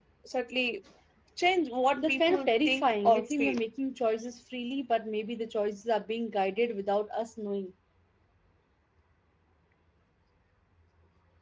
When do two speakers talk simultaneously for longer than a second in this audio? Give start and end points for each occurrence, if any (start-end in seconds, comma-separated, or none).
1.9-3.5